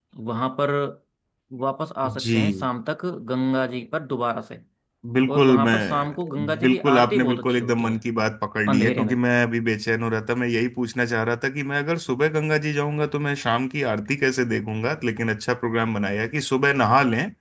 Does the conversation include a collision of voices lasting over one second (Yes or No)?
Yes